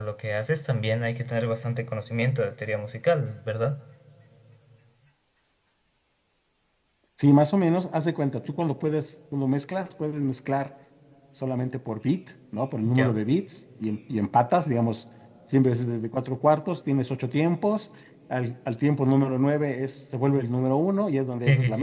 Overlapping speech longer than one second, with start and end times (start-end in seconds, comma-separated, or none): none